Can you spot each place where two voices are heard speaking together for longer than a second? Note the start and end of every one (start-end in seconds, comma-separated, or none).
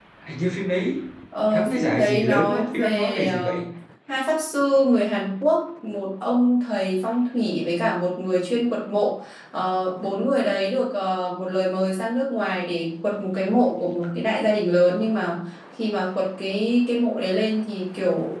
1.5-3.5